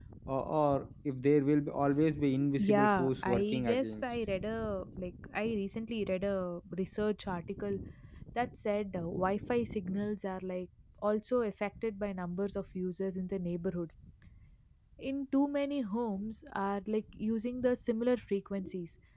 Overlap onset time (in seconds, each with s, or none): 2.3 s